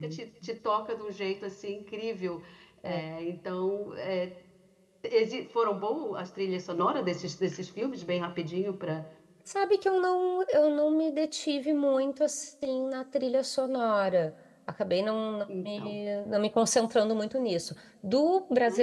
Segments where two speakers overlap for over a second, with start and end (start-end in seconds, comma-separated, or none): none